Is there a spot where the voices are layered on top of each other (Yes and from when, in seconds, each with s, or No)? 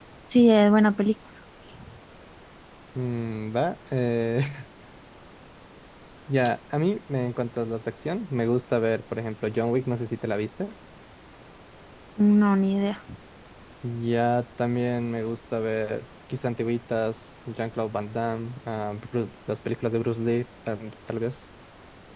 No